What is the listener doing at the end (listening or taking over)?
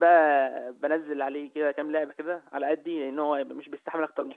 taking over